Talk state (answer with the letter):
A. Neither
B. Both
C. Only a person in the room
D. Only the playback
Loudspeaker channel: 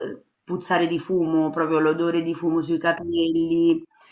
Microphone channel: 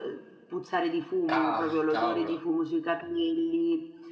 B